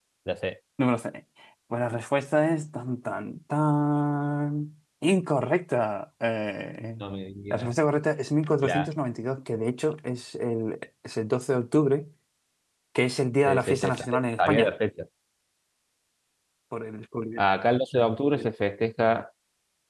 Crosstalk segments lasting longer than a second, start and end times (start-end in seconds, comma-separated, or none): 13.5-14.7